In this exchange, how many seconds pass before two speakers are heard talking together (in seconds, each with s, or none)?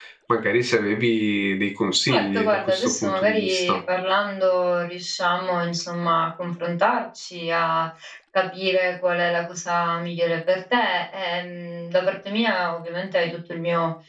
2.1 s